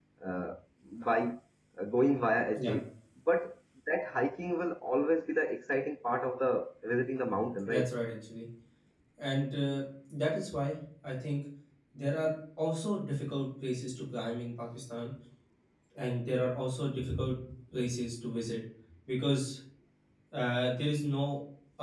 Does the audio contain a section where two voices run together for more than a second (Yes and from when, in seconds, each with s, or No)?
No